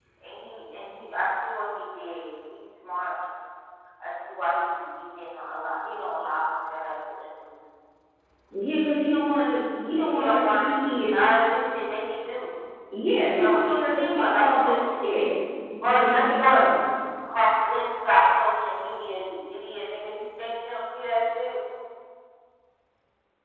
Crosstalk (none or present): present